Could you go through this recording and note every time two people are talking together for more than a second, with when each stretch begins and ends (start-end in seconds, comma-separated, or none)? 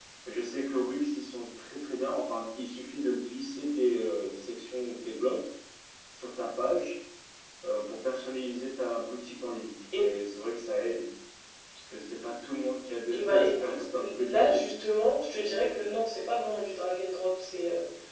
13.1-14.7